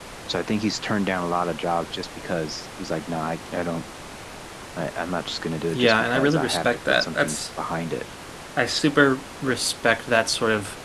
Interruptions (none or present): present